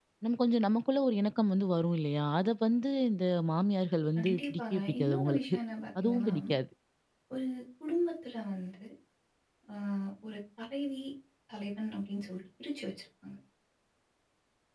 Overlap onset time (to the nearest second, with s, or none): 4 s